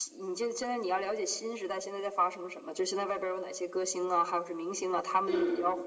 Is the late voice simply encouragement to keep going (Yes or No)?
Yes